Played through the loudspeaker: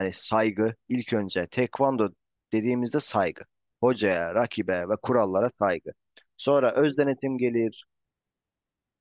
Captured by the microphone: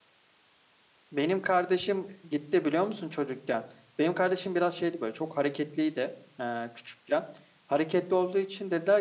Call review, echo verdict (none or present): none